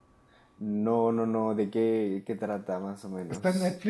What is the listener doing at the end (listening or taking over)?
taking over